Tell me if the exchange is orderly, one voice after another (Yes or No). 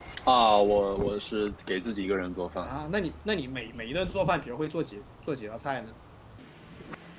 Yes